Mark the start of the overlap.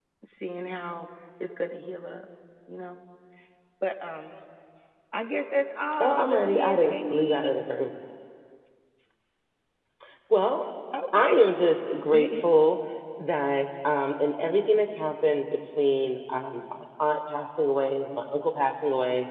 6 s

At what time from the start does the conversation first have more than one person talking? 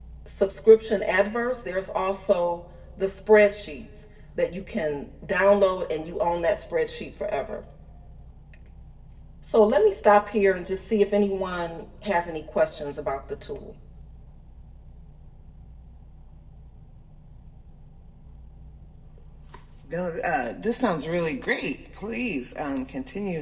none

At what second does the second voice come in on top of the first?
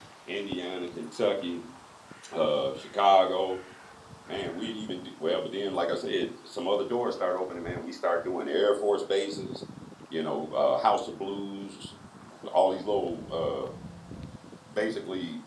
none

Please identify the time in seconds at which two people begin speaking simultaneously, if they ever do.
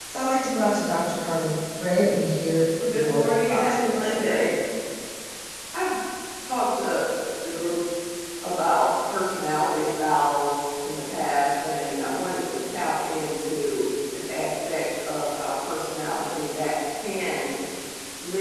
3 s

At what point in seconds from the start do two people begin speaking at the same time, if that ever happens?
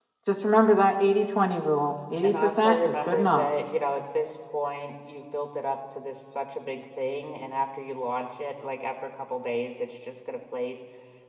2 s

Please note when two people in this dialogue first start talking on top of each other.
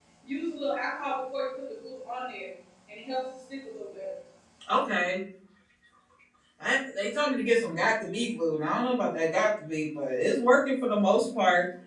none

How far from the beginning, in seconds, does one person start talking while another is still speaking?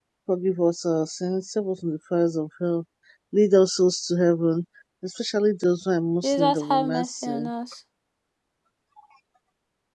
6 s

